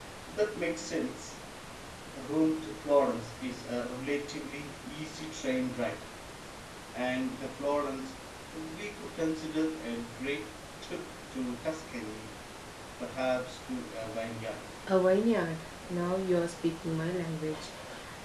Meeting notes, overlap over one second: none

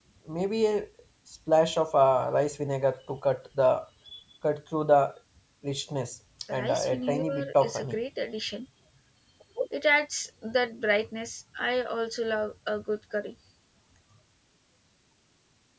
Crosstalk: present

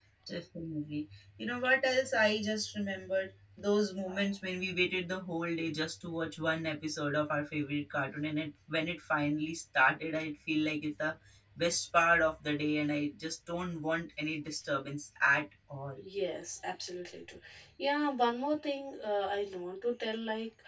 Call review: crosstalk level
none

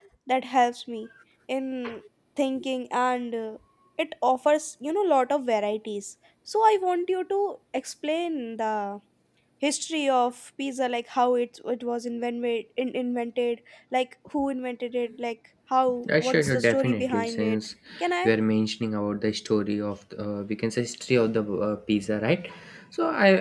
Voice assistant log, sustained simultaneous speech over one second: present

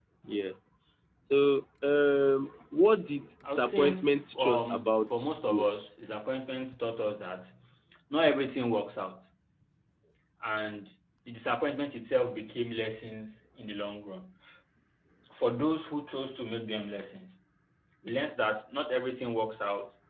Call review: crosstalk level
present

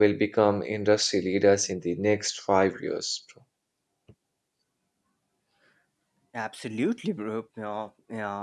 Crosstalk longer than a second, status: none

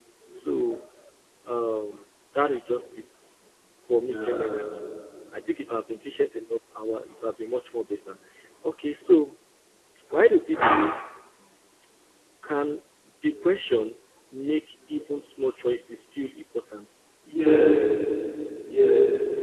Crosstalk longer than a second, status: none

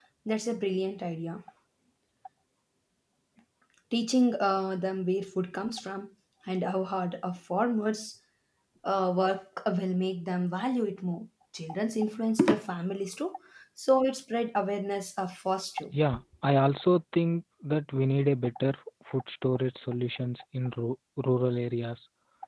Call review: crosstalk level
none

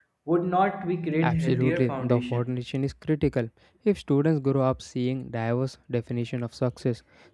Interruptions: present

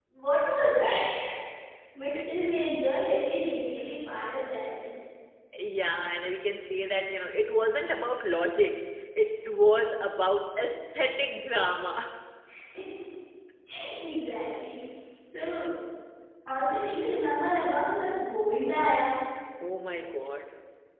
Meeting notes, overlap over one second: none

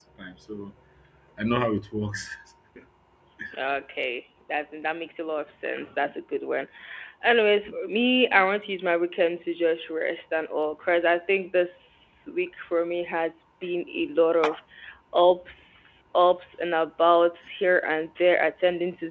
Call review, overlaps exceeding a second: none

